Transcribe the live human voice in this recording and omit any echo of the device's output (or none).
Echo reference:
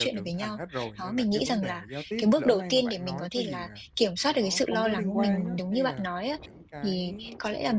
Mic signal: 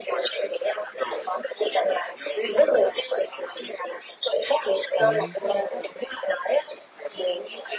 ừ